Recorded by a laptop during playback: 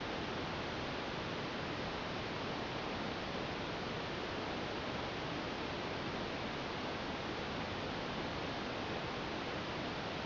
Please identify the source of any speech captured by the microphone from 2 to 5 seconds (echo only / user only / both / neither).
neither